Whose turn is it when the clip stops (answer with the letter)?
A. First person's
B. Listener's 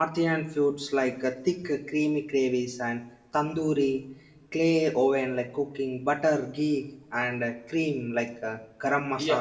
B